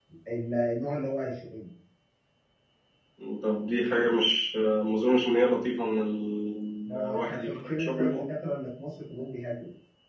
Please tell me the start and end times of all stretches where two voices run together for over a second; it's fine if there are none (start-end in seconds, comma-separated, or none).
7.0-8.2